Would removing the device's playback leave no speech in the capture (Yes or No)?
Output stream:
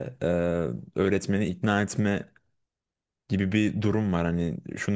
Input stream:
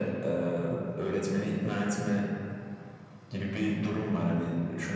Yes